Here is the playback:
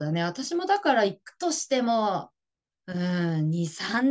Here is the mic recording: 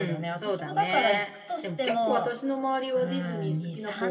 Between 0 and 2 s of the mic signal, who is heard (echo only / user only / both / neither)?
both